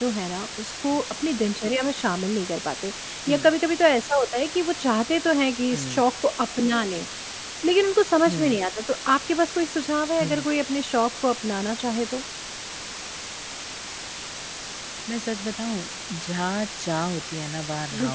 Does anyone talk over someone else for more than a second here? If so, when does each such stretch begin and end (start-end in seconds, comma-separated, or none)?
none